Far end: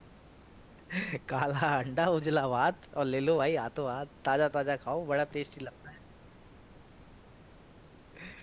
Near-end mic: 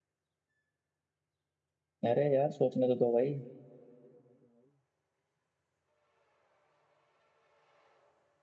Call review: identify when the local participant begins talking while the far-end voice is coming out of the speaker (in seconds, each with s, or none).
2.1 s